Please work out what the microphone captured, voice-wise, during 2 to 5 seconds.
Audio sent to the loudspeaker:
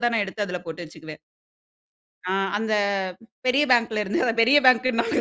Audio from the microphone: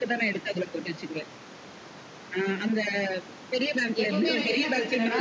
both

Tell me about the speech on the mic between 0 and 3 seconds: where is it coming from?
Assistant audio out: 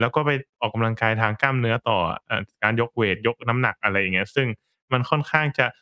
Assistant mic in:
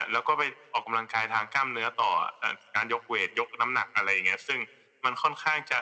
echo only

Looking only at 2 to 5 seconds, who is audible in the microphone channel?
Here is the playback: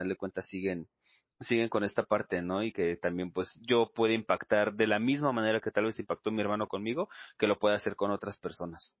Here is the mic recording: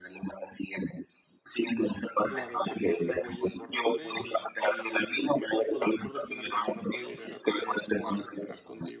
both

